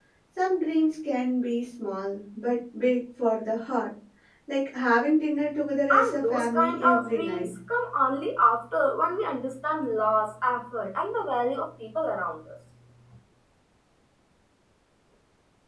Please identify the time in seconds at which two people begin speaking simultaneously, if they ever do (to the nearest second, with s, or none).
6 s